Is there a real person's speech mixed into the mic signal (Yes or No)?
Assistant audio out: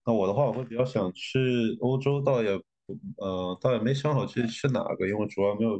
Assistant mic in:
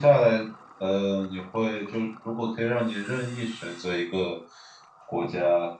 Yes